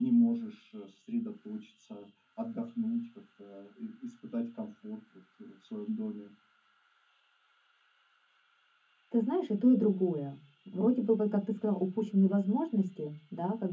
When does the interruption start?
none

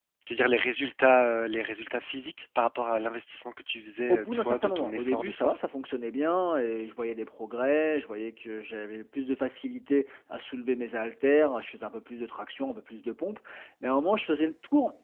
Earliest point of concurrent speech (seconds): 4.1 s

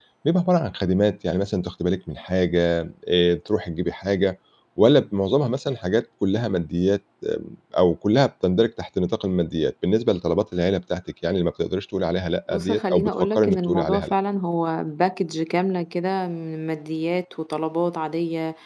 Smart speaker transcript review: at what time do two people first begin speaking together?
12.5 s

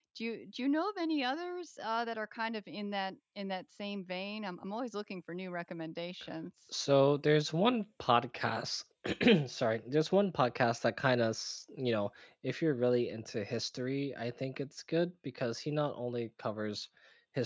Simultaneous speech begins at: none

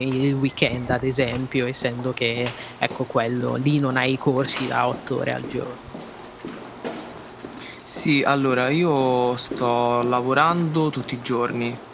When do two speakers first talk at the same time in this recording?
none

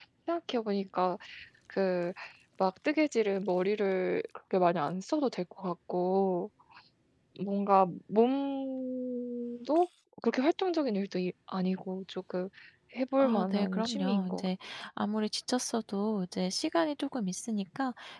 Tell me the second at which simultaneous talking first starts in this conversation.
13.2 s

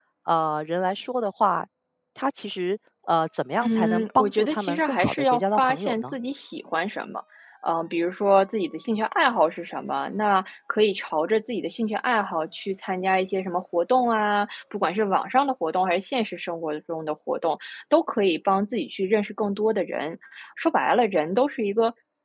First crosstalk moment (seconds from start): 3.6 s

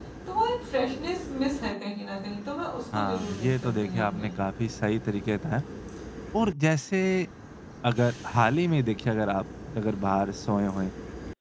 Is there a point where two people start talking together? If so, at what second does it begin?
2.9 s

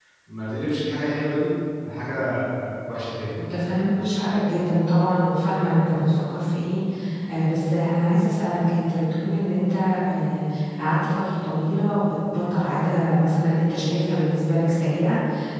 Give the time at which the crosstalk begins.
none

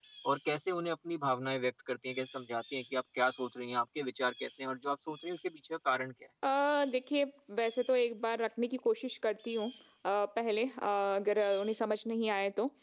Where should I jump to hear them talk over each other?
none

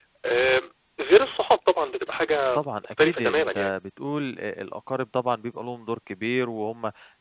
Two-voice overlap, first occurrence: 2.5 s

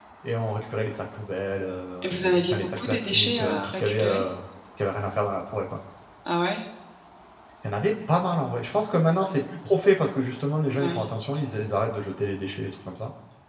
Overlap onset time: 2.0 s

